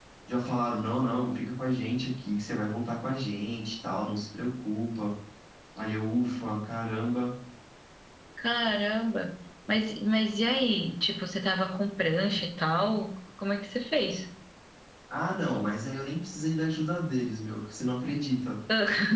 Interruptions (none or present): none